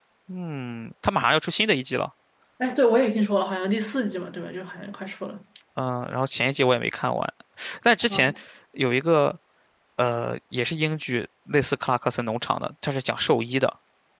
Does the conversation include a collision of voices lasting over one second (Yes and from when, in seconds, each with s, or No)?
No